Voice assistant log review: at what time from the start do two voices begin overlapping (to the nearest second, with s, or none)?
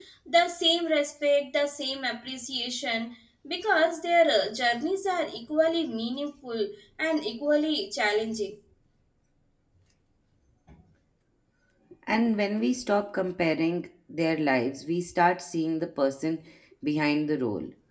none